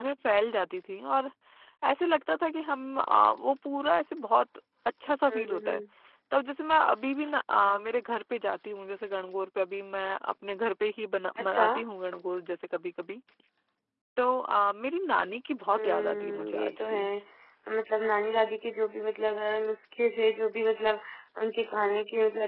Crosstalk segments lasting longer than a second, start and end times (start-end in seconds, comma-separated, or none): 15.7-17.1